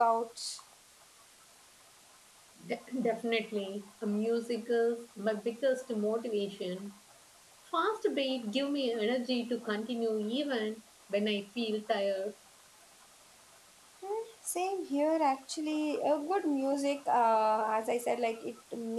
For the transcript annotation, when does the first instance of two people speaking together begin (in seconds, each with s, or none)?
none